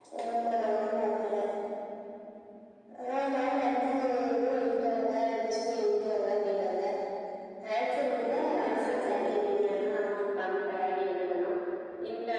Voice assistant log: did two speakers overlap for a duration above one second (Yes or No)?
Yes